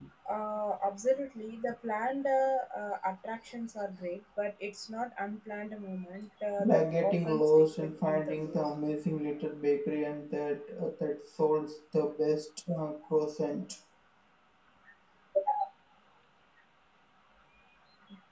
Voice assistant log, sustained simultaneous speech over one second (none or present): present